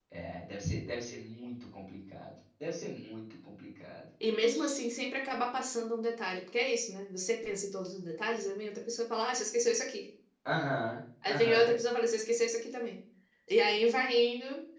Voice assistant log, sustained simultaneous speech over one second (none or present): none